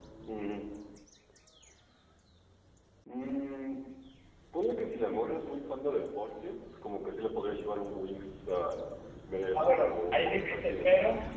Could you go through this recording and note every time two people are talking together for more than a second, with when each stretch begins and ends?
9.5-10.8

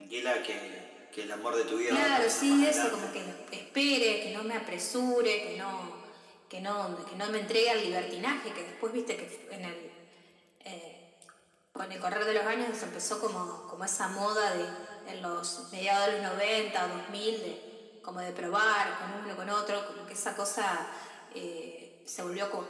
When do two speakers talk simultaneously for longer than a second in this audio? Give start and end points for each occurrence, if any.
1.9-3.1

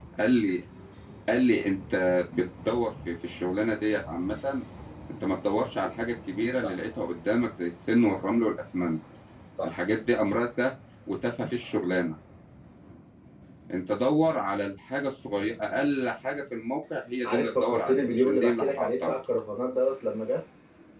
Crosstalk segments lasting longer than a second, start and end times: 17.2-19.1

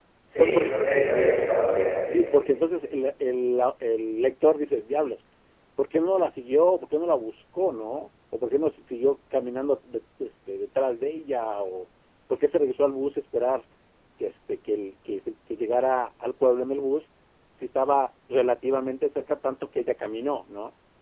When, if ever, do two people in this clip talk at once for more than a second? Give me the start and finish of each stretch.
none

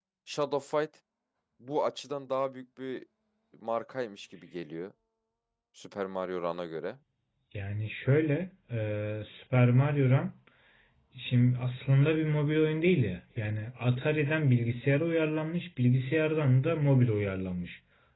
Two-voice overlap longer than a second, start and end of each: none

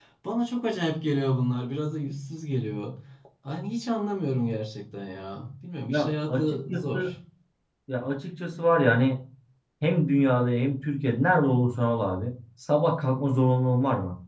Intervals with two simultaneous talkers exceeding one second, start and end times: 5.9-7.1

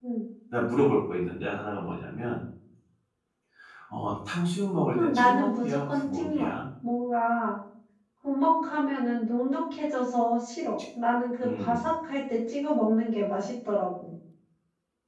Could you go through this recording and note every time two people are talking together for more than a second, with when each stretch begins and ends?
4.8-6.5

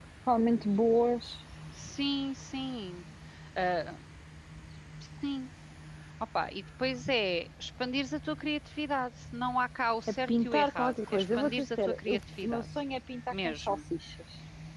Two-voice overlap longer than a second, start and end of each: 10.1-12.6

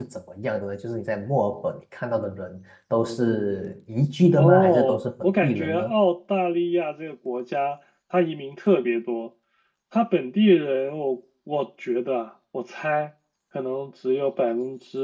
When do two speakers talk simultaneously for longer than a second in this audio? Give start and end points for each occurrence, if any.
4.3-5.9

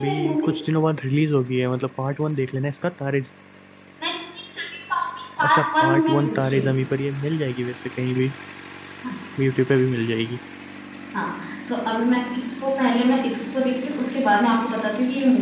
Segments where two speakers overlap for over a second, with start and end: 5.4-6.7

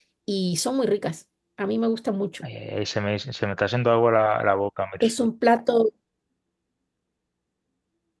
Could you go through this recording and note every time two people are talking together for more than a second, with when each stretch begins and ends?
none

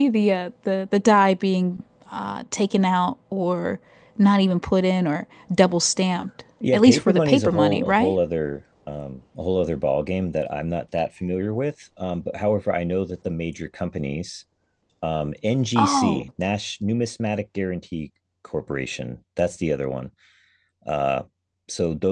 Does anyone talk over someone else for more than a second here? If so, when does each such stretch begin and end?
6.7-8.2

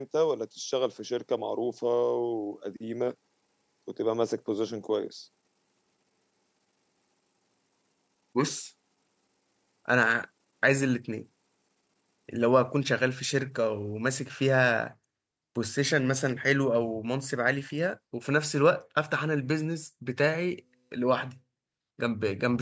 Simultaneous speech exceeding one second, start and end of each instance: none

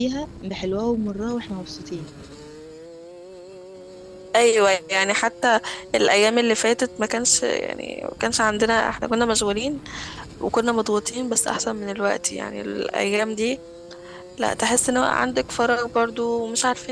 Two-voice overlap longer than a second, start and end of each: none

